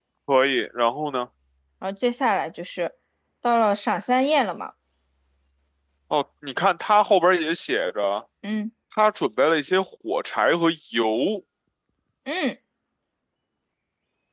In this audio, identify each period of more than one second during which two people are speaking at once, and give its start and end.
none

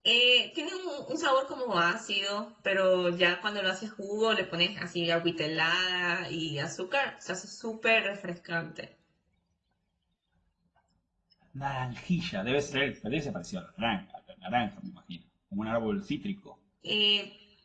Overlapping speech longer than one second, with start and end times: none

